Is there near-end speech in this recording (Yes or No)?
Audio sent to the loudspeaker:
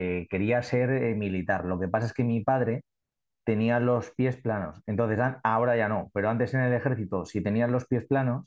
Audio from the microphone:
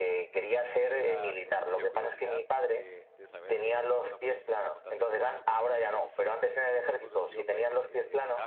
Yes